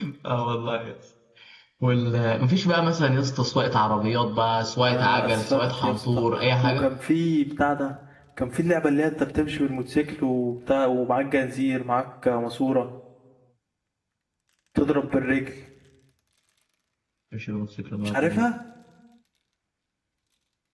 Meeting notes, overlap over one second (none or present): present